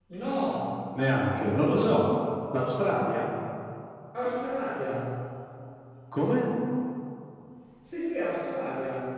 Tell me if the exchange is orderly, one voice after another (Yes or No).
Yes